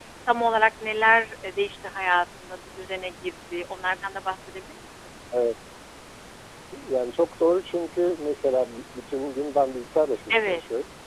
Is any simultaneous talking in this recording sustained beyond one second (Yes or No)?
No